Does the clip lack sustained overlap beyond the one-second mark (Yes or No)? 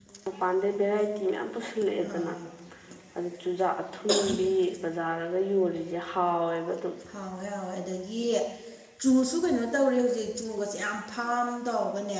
Yes